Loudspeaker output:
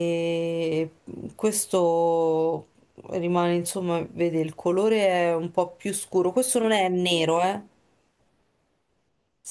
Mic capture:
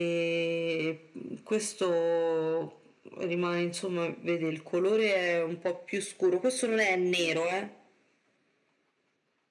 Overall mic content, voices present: echo only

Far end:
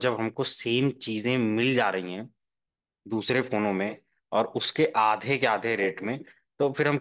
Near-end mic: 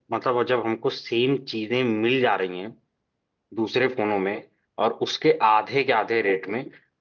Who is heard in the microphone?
echo only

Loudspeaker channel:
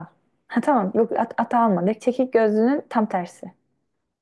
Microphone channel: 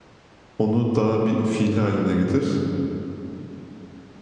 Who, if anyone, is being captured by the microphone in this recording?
user only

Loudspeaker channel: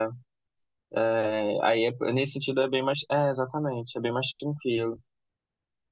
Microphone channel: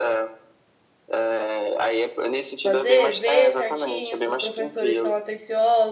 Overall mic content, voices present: both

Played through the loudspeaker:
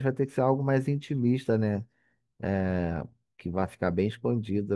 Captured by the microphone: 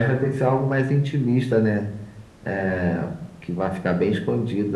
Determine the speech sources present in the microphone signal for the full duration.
echo only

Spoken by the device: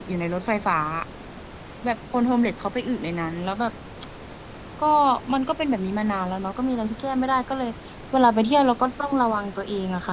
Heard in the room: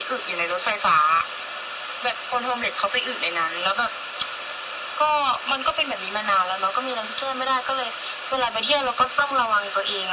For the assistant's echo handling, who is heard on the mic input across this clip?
echo only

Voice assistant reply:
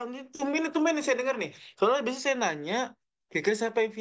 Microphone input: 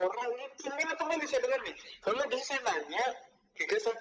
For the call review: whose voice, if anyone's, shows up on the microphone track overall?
echo only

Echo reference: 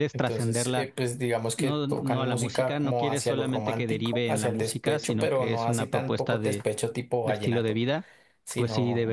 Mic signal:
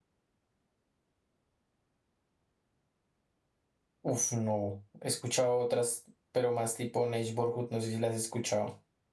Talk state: user only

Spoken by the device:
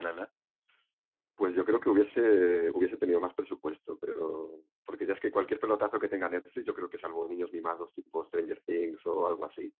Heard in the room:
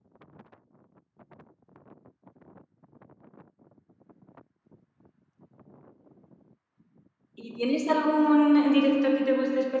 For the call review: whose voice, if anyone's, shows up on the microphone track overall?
user only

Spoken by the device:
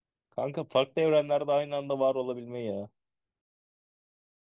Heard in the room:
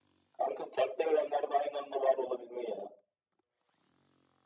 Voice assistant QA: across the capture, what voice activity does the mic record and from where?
echo only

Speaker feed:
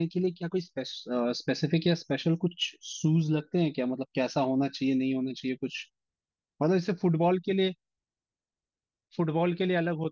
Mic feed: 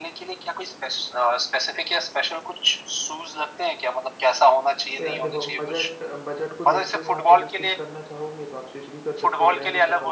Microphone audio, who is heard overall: both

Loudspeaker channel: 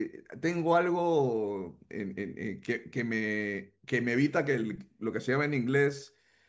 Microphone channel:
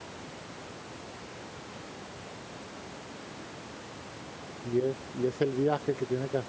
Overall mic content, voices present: user only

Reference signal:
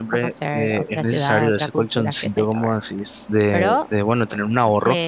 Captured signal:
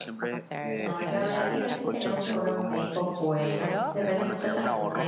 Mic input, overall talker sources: both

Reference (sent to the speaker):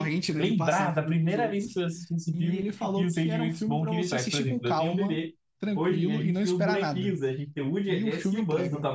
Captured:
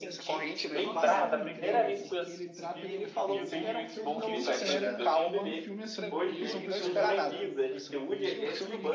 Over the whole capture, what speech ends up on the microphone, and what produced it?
both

